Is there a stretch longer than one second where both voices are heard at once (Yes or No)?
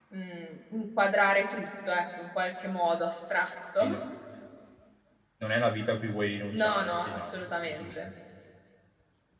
Yes